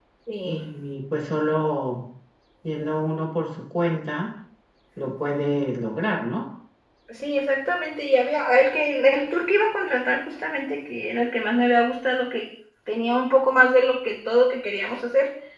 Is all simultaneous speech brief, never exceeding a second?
Yes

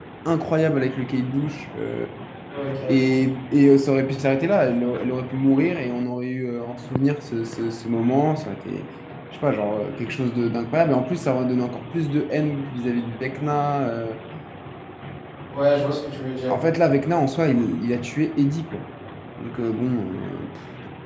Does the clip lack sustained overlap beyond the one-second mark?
Yes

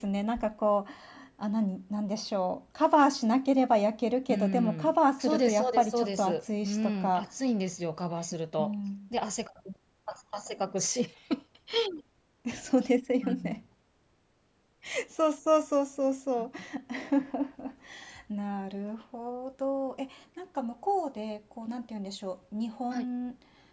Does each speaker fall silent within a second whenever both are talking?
No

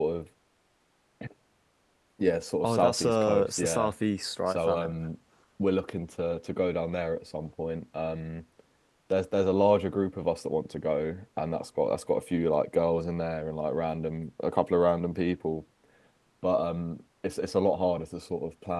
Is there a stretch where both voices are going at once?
Yes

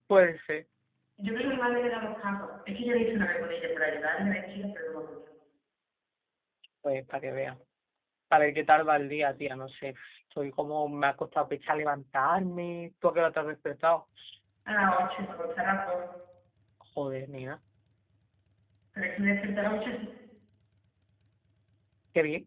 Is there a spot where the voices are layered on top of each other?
No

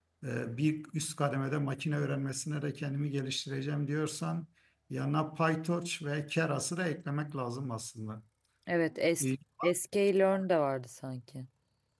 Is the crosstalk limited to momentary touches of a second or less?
Yes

